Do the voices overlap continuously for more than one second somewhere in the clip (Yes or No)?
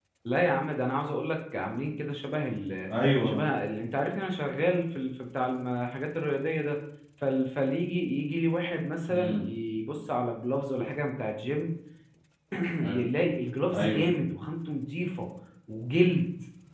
No